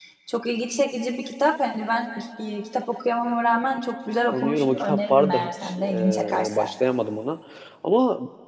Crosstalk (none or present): present